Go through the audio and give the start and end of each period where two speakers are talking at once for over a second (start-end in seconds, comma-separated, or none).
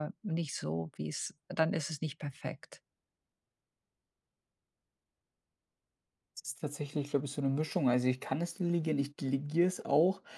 none